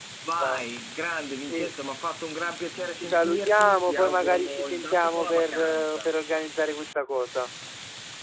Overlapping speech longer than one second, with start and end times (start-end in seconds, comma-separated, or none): 2.9-6.2